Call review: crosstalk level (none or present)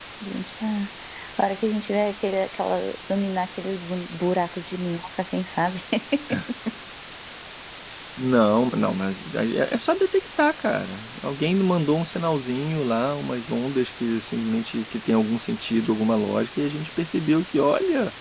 none